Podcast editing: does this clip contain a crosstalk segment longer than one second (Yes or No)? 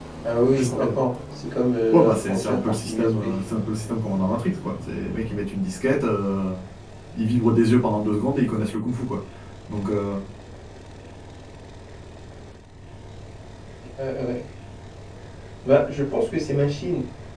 Yes